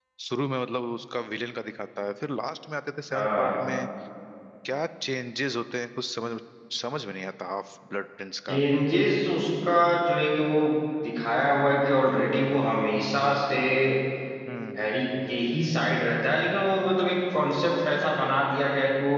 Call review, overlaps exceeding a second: none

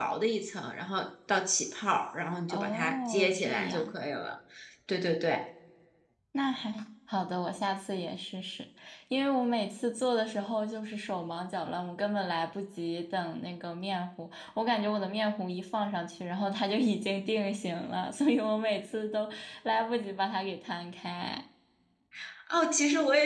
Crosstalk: present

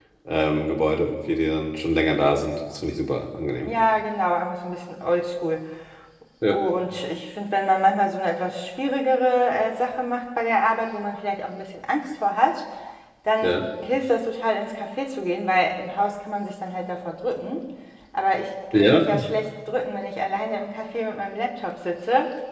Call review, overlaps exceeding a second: none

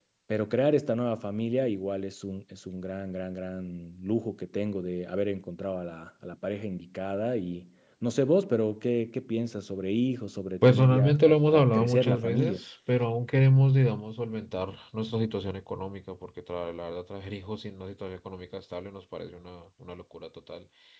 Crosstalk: present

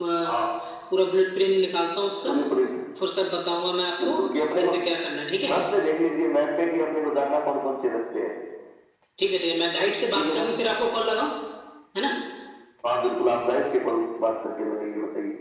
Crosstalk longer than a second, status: none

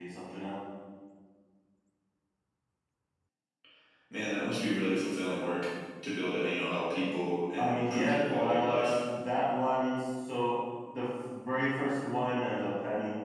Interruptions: present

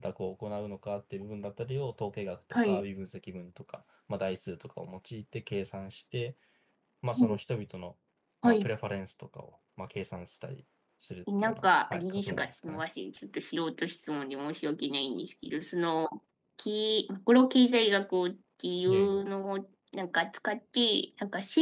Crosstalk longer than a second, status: present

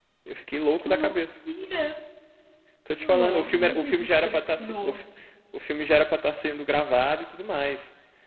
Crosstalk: present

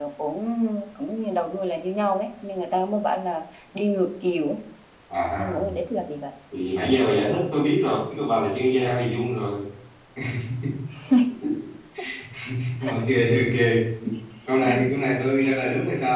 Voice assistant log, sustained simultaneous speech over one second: none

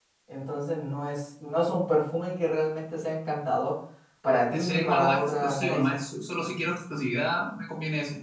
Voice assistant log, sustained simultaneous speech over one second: present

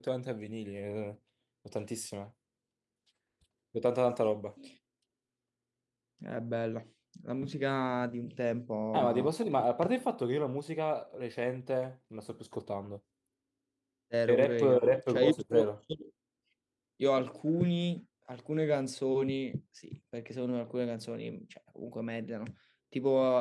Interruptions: present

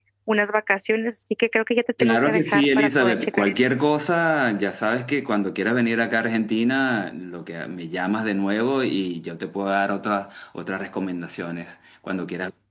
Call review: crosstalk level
present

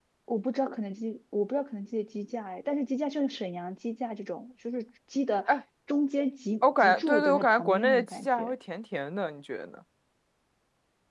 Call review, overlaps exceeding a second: present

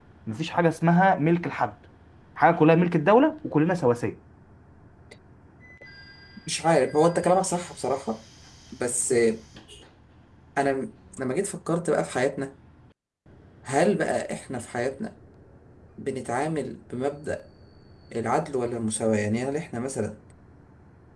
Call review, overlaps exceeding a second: none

